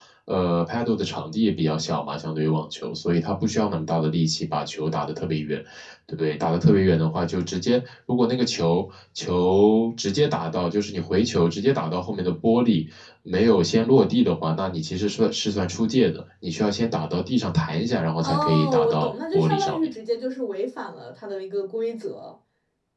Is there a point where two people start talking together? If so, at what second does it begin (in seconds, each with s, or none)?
18.2 s